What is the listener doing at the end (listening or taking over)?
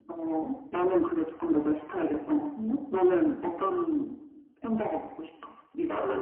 taking over